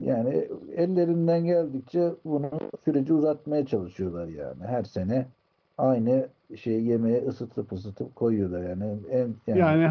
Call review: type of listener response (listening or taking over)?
taking over